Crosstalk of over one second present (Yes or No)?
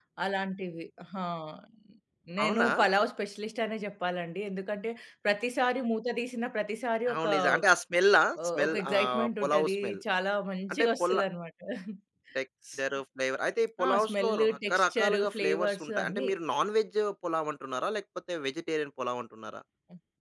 Yes